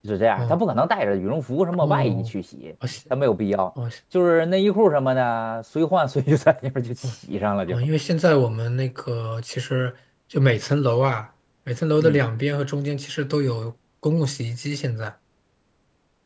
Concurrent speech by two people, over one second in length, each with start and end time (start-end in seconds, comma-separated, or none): none